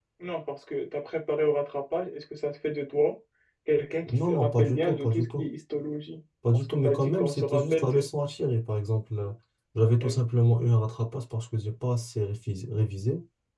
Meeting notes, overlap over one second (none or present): present